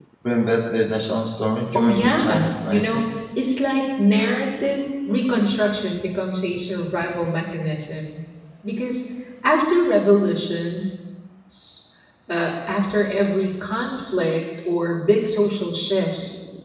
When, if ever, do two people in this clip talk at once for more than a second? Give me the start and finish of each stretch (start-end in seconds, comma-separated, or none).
1.8-3.0